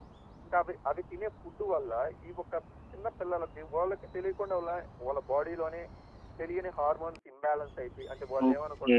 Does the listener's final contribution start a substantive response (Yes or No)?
Yes